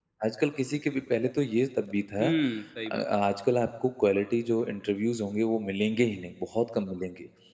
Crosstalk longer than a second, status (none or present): none